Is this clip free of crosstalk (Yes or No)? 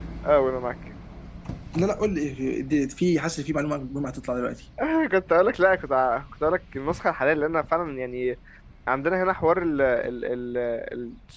Yes